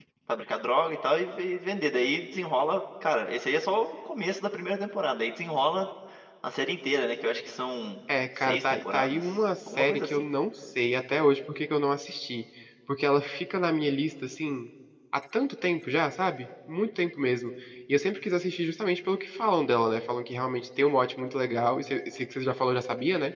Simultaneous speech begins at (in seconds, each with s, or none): 8.4 s